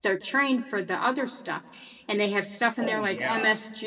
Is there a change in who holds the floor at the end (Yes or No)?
No